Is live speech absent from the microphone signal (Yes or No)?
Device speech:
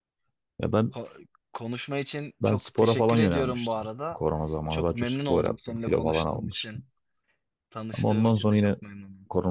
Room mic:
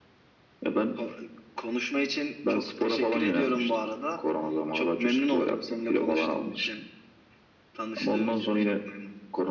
Yes